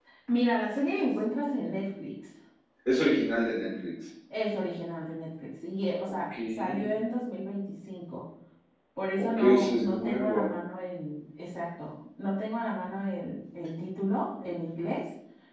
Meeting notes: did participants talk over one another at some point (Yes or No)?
Yes